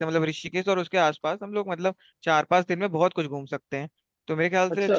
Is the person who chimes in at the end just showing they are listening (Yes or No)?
Yes